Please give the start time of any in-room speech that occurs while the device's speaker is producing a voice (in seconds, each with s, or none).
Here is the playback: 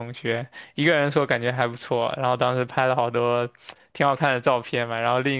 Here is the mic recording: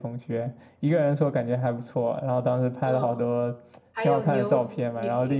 2.8 s